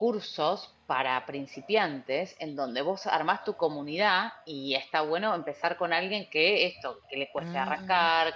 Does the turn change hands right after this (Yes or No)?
No